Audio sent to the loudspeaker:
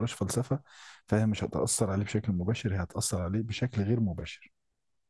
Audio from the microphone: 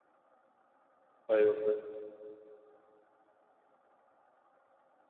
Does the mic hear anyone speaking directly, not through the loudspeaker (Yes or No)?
Yes